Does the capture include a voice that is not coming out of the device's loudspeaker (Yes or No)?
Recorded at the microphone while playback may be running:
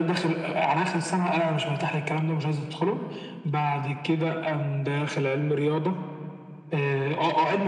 No